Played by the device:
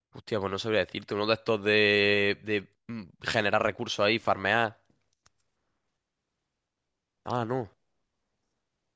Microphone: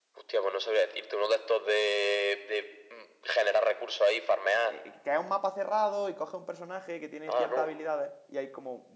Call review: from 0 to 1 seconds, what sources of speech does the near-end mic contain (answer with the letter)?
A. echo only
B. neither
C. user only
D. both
A